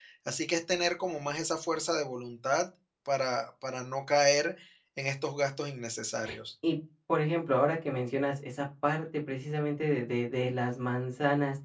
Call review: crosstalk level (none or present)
none